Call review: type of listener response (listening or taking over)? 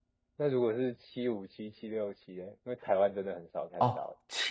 taking over